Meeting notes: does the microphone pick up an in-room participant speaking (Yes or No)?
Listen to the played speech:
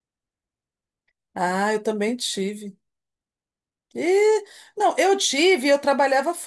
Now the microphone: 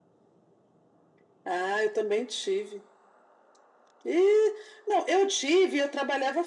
No